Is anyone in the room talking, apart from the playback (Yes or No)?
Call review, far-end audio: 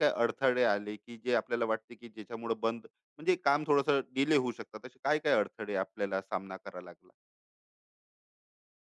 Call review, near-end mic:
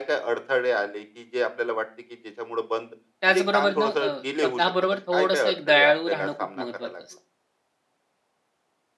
Yes